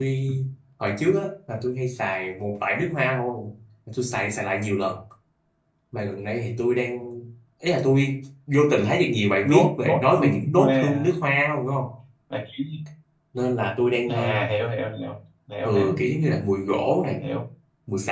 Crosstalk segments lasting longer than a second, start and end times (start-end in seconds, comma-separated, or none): 9.4-11.1